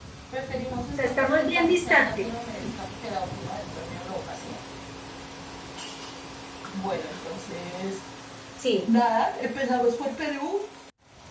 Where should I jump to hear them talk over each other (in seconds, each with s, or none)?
1.0 s